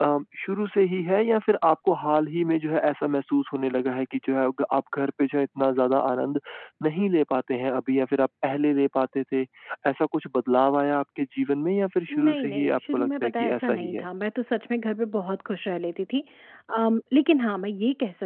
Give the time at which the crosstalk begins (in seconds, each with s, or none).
12.1 s